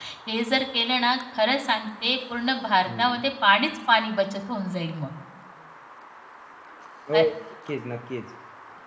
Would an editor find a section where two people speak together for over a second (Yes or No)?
No